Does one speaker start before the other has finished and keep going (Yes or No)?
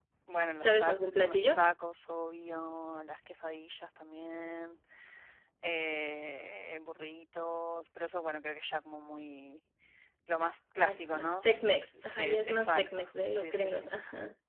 Yes